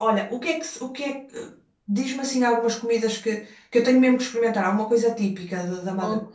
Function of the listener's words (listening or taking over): taking over